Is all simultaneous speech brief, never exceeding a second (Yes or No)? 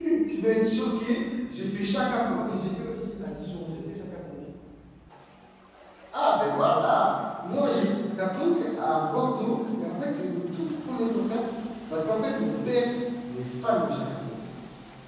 Yes